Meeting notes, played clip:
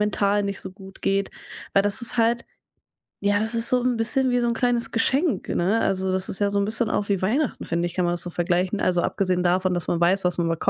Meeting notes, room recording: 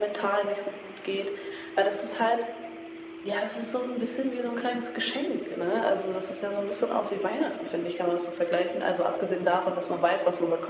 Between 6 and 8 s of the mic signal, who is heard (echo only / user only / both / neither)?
echo only